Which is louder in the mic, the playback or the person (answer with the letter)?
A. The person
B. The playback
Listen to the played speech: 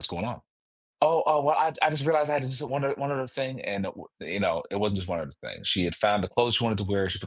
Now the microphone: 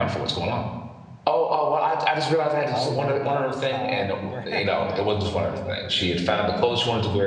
B